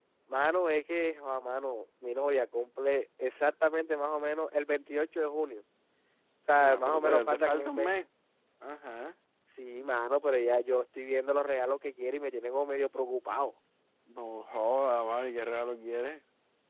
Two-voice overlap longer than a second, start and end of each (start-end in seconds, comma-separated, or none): 6.6-7.9